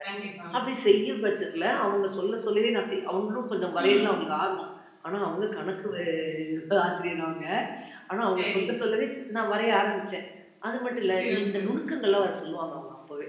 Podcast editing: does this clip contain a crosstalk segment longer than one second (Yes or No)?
No